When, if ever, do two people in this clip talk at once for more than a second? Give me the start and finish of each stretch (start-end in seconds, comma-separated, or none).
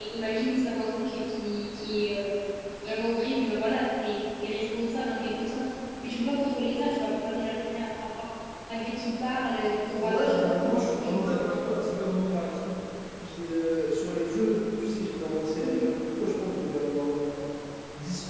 10.0-11.7